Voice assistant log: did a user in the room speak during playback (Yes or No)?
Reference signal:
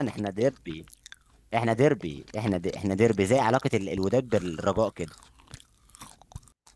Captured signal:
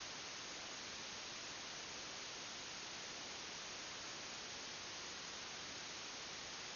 No